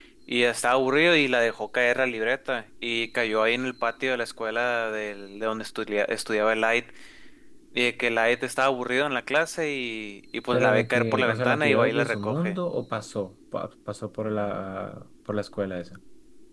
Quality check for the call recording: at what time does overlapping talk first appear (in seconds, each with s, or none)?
10.5 s